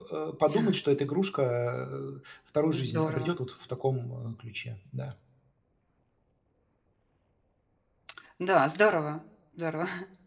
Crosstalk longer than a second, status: none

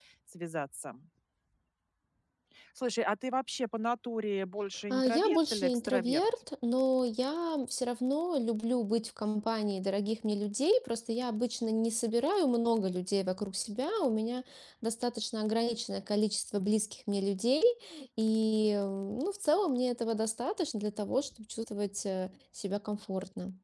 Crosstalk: present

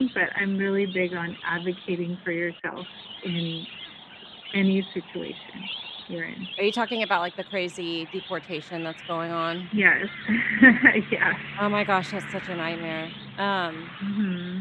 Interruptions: none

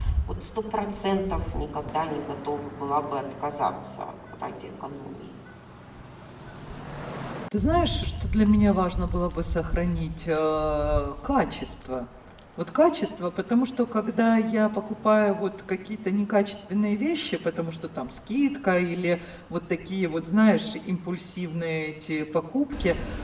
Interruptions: none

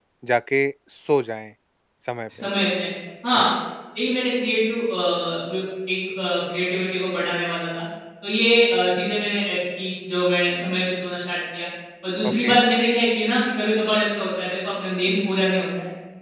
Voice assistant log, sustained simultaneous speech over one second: none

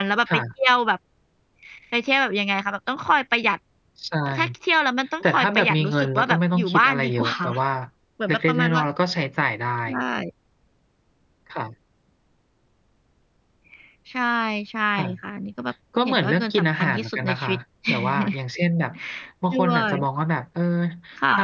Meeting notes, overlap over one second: present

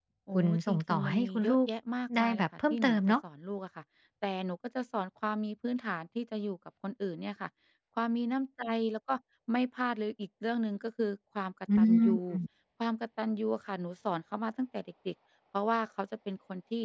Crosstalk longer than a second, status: present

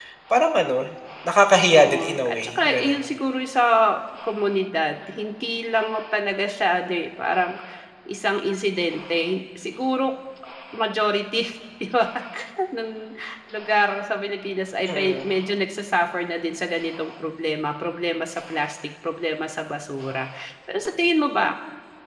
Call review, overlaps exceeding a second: present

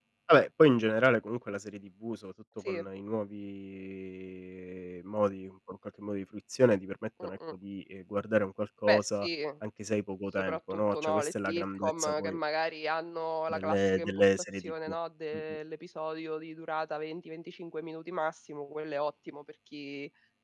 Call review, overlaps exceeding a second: present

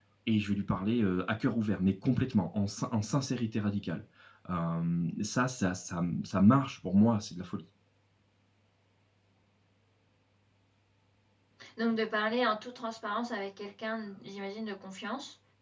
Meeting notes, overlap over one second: none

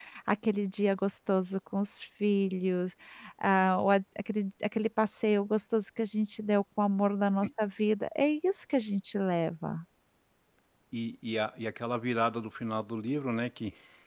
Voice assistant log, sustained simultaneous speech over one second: none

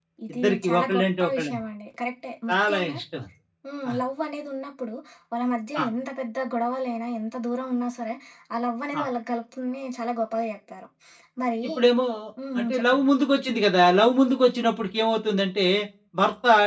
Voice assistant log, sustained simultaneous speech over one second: present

